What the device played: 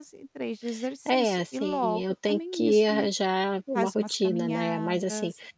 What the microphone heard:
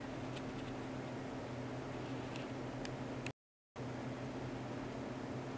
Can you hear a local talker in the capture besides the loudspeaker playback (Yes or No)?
No